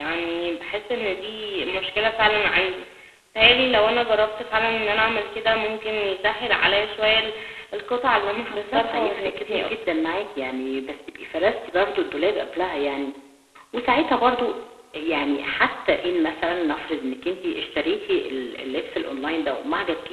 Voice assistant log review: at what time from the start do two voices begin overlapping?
8.5 s

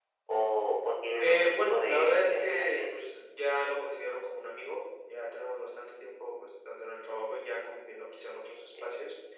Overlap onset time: 1.2 s

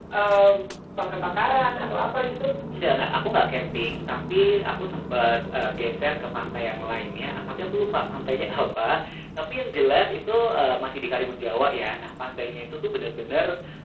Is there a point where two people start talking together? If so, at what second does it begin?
none

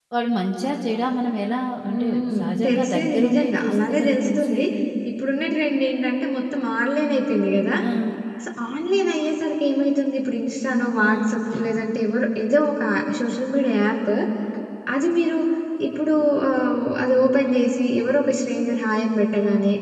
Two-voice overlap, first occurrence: 1.9 s

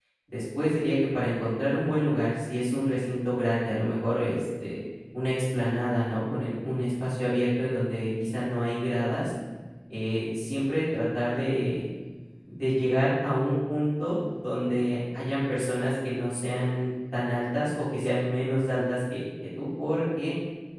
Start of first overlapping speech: none

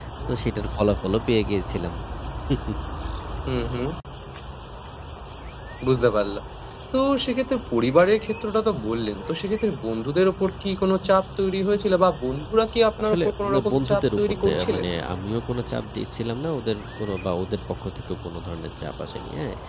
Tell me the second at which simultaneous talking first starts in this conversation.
13.0 s

